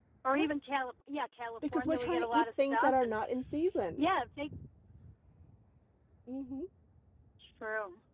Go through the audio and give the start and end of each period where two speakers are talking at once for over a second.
1.7-3.2

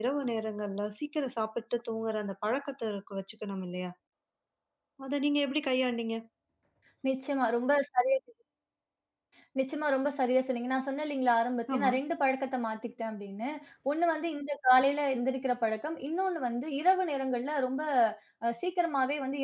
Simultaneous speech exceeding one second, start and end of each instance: none

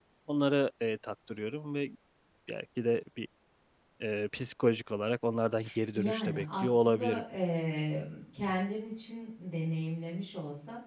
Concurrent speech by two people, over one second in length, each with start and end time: 5.9-7.2

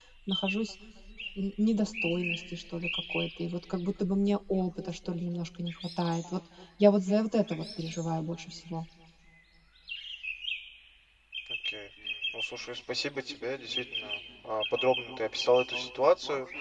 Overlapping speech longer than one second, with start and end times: none

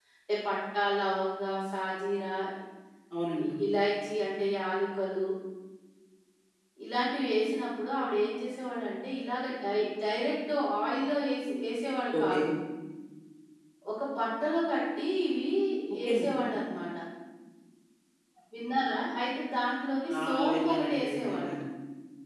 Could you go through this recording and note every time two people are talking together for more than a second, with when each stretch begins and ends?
20.2-21.6

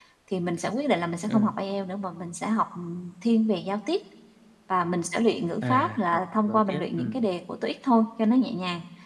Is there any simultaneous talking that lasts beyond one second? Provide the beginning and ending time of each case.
5.6-7.2

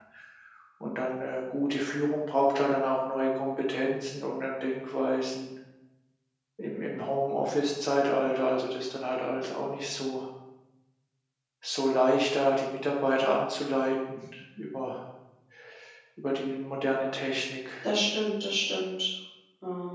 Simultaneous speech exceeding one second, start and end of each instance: none

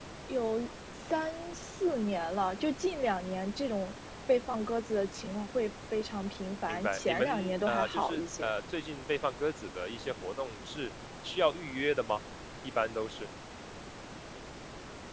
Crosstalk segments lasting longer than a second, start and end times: 6.7-8.5

